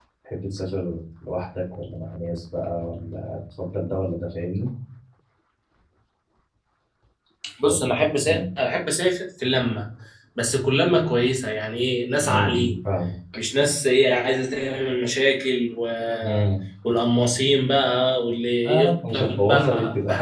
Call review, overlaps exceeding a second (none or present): present